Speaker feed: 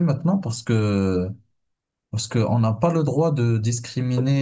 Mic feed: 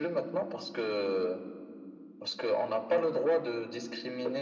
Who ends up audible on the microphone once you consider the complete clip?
echo only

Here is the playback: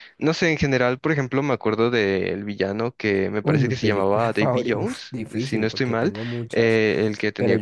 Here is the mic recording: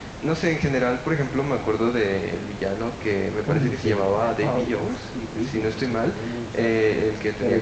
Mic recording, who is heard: echo only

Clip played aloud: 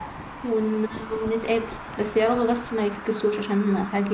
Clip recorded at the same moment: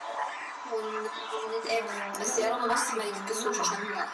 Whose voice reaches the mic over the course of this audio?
both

